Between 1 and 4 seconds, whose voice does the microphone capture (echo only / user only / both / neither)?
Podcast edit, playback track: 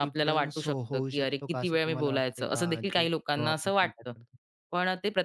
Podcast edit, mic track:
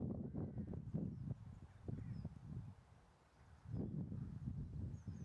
neither